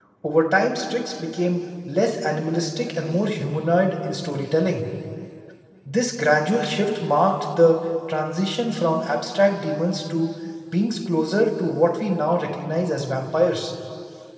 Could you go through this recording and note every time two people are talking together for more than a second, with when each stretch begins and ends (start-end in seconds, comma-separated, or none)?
none